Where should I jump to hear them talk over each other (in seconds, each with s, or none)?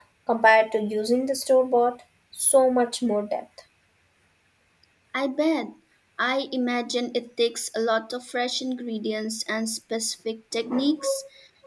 none